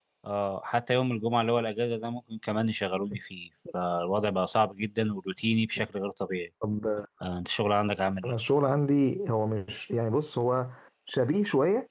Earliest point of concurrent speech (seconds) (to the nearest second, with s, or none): none